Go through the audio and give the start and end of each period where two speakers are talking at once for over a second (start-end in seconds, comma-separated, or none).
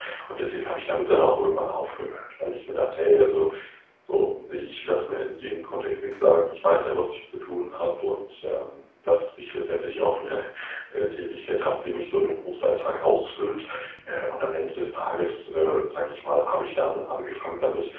none